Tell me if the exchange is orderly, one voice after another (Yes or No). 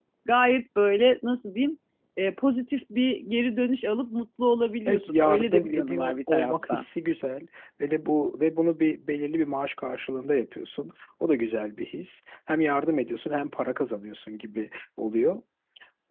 No